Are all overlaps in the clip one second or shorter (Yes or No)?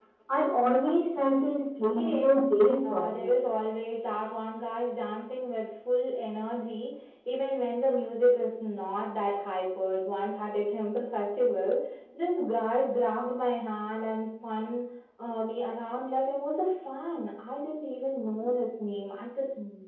Yes